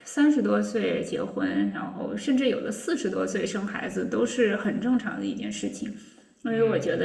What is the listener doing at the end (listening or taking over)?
listening